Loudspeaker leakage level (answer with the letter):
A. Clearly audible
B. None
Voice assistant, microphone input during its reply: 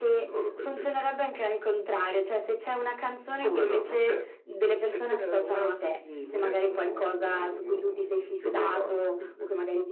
A